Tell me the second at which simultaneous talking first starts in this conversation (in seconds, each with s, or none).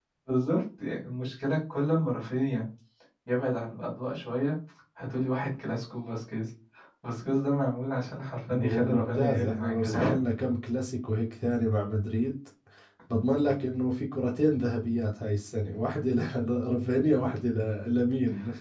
8.5 s